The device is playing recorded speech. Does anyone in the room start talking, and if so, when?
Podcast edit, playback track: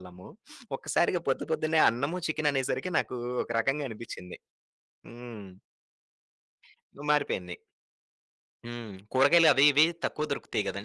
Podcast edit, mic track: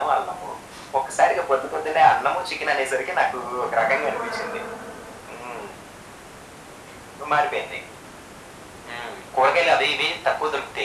3.2 s

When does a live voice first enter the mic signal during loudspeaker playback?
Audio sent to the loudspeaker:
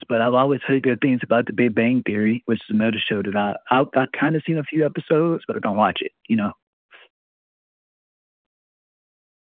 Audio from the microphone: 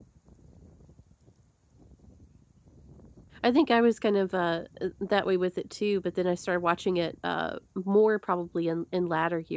3.4 s

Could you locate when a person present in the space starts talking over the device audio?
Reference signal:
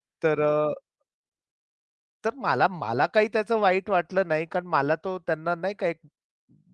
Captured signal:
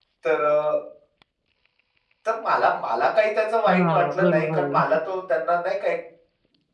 3.7 s

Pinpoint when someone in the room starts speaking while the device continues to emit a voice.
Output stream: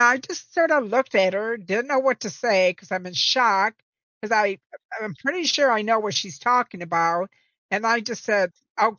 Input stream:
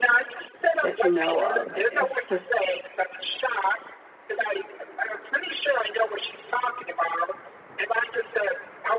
0.8 s

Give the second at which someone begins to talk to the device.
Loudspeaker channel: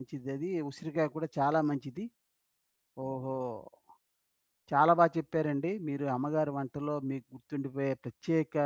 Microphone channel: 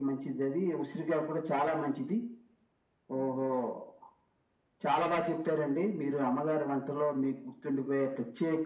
none

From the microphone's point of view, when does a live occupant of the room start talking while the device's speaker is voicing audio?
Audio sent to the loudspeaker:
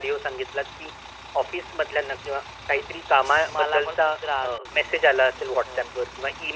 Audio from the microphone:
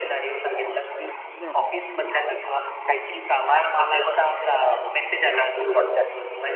1.4 s

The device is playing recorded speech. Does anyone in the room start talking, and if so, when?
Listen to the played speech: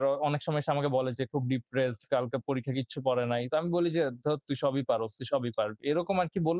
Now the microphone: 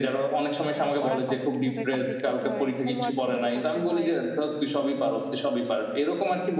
0.8 s

